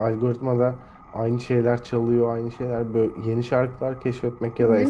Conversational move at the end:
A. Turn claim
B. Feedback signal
B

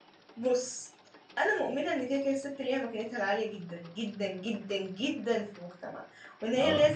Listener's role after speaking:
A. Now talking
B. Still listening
B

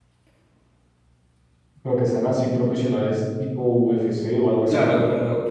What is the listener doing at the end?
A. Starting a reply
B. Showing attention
A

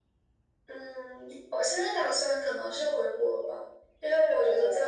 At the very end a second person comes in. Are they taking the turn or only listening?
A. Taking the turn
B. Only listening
B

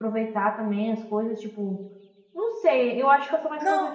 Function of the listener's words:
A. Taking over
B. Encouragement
B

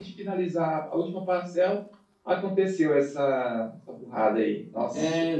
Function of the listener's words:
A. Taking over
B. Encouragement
A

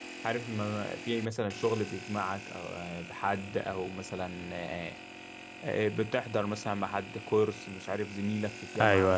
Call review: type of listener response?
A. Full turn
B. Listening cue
B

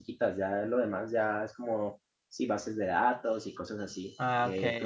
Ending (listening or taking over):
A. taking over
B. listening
A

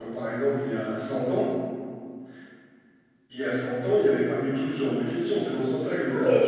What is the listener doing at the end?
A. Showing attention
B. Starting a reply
B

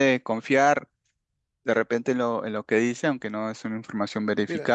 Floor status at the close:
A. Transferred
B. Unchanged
A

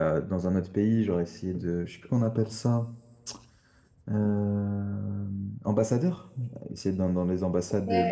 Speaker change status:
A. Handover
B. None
A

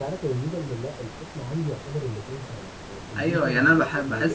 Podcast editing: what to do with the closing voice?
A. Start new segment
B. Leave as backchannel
A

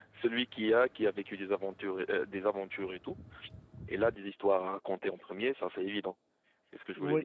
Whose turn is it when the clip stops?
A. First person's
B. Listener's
B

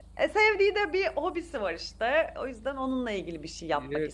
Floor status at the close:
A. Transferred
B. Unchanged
A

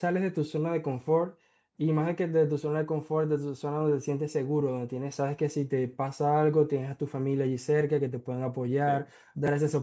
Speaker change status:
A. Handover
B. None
B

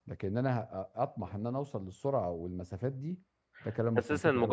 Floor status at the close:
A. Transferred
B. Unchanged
A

